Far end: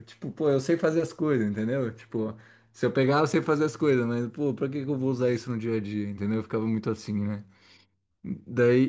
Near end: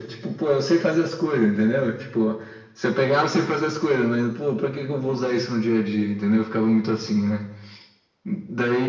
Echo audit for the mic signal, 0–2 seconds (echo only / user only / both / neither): echo only